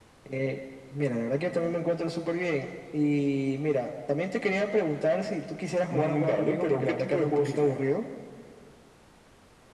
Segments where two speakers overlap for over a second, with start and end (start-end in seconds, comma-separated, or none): 5.9-7.7